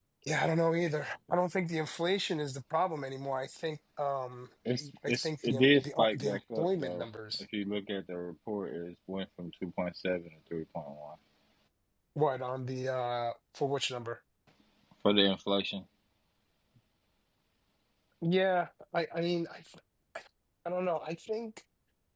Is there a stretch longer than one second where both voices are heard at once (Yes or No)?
Yes